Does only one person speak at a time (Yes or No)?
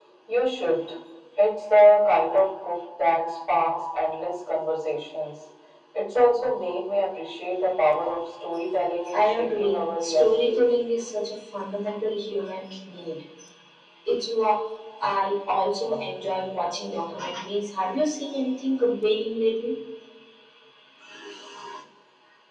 No